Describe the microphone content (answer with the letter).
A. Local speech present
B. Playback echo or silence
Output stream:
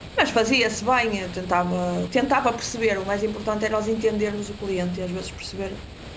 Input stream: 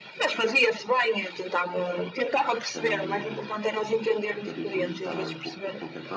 A